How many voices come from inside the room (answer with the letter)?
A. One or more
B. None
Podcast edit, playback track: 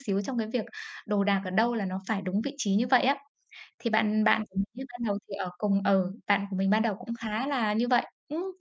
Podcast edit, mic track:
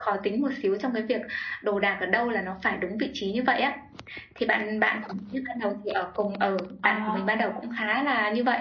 A